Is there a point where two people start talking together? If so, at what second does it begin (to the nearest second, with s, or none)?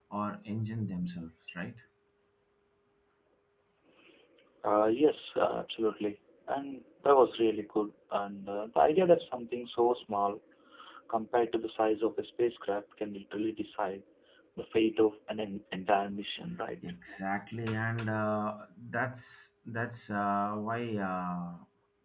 none